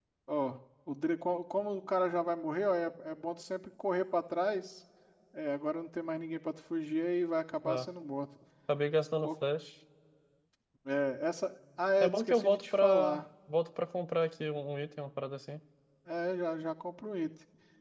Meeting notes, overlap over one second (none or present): present